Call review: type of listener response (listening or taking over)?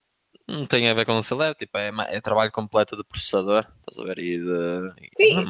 taking over